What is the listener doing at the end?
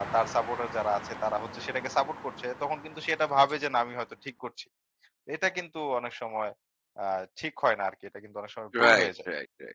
taking over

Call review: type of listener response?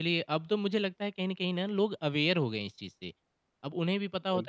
listening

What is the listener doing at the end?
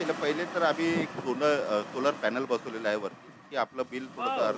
taking over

